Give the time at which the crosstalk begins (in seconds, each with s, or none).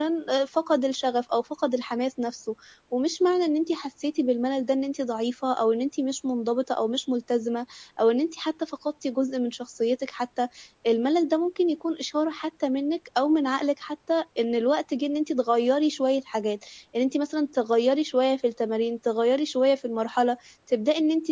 none